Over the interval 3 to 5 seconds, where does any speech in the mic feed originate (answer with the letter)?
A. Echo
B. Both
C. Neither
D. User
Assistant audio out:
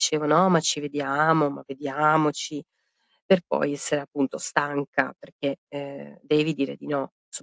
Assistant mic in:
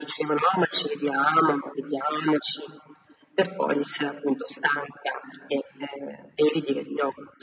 A